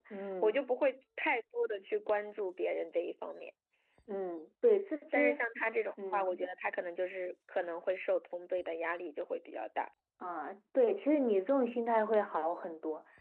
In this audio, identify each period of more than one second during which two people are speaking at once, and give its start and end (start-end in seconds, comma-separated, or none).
none